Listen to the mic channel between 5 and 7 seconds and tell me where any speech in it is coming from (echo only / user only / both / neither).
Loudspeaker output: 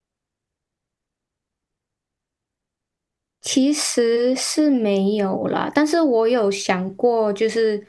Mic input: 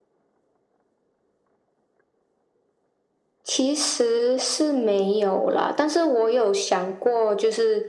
echo only